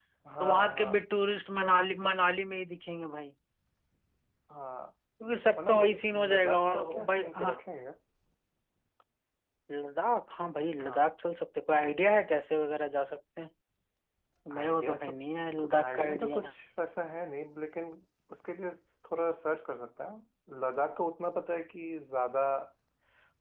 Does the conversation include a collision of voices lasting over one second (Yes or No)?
Yes